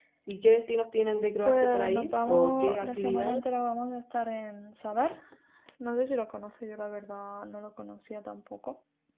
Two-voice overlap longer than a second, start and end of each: 1.4-3.4

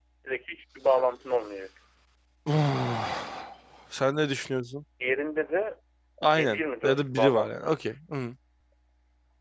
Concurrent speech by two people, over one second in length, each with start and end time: 6.3-7.7

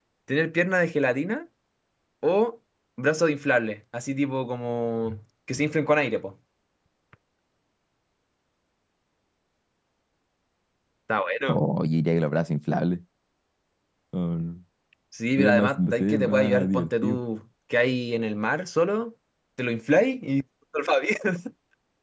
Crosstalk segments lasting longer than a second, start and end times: 15.3-17.2

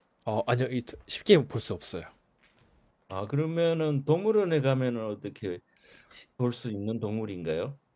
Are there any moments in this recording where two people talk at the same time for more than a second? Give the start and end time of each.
none

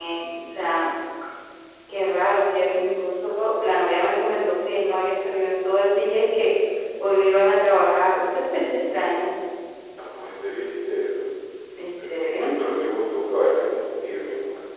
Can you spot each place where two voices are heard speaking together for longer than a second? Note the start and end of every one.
none

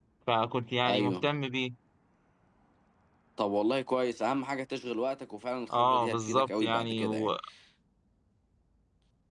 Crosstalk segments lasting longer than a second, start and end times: 5.8-7.3

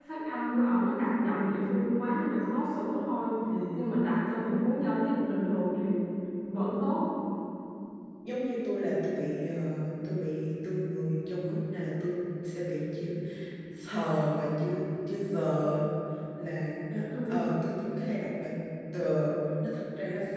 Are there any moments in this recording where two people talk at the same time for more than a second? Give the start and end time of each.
none

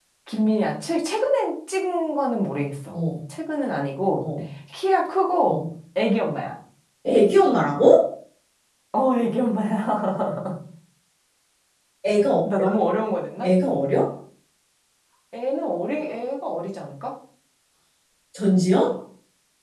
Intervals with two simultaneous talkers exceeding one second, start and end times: none

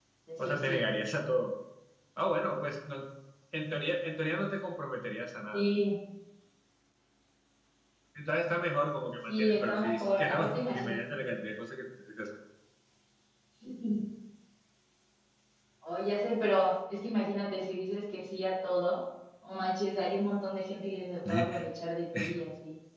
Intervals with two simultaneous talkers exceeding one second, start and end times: 9.3-11.0

